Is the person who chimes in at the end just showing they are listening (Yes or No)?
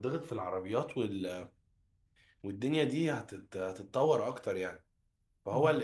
Yes